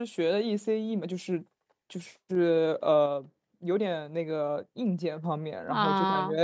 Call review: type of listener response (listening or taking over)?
listening